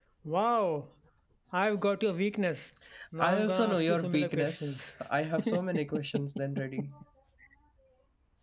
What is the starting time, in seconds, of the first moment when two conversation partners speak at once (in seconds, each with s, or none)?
3.2 s